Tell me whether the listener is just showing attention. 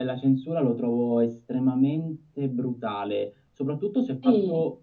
Yes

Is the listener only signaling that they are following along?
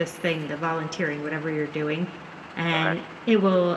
Yes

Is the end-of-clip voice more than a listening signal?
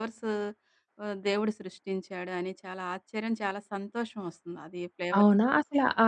Yes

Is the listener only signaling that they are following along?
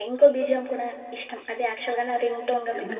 No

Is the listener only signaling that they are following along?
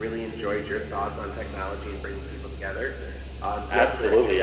No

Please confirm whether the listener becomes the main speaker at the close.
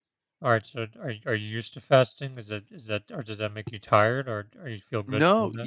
Yes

